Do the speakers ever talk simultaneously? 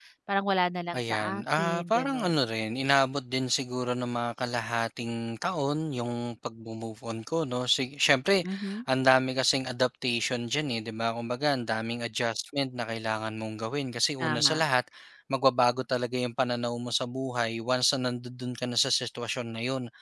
Yes, from 0.9 s

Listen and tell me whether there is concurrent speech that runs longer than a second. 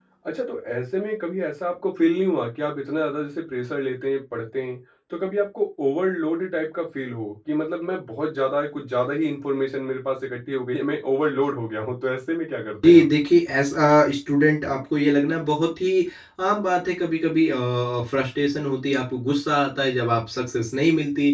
No

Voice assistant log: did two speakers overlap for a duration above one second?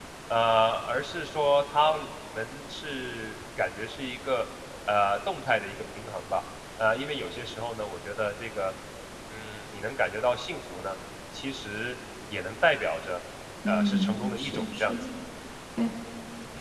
Yes, from 13.7 s

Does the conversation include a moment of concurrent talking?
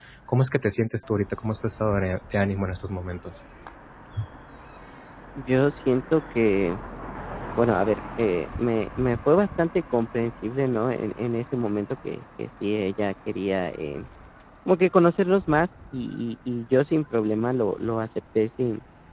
No

